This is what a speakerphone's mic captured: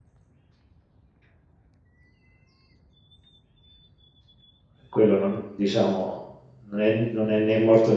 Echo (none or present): none